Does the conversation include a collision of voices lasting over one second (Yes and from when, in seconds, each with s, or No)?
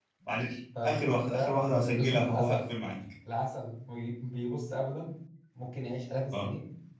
Yes, from 0.8 s